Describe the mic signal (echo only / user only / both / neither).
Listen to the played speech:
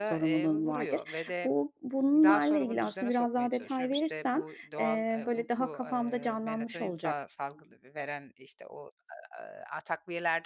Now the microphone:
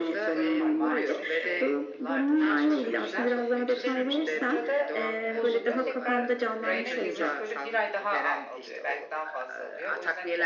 both